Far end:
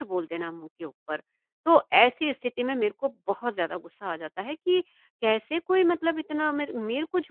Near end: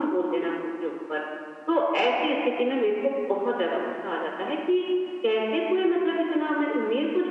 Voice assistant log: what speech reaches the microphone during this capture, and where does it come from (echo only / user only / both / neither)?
echo only